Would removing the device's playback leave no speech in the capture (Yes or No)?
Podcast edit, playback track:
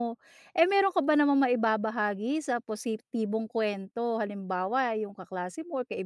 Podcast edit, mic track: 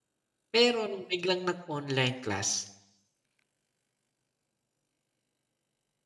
No